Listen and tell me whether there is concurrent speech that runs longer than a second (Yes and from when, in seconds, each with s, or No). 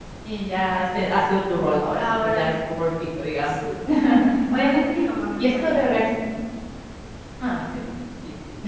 No